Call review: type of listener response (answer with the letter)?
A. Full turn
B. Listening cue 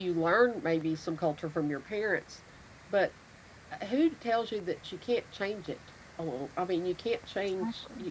A